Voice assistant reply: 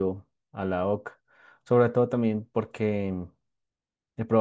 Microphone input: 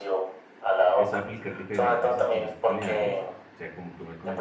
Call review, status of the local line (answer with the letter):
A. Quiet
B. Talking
B